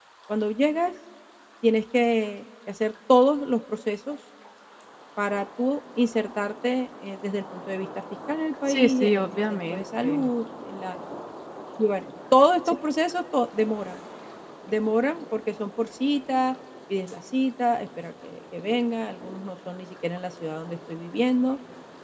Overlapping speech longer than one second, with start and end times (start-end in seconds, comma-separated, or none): 8.7-10.3